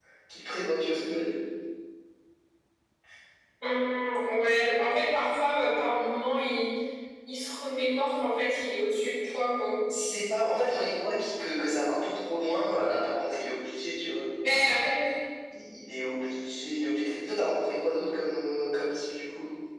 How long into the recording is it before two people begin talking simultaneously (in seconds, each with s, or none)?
none